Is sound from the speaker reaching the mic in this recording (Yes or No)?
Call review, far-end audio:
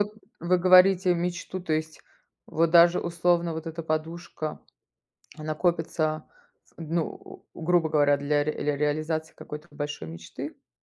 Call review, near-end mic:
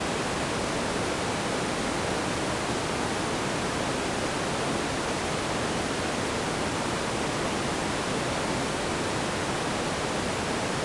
No